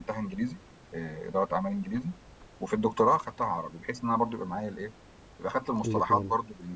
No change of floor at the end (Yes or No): Yes